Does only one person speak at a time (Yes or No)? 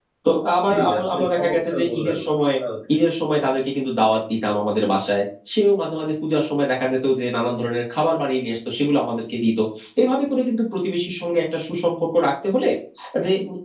No